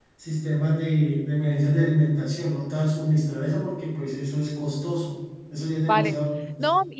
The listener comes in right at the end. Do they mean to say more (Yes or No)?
Yes